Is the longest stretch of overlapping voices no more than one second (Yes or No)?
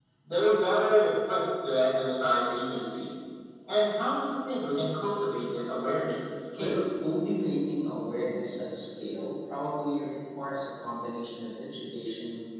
Yes